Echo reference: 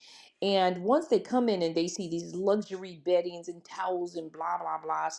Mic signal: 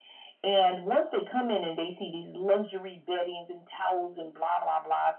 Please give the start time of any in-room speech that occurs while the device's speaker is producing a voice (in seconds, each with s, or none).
none